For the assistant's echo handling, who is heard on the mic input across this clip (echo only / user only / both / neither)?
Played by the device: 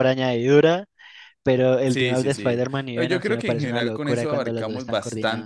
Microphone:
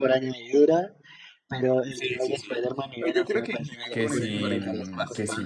both